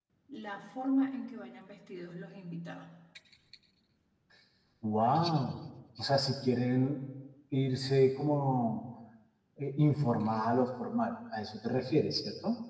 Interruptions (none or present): none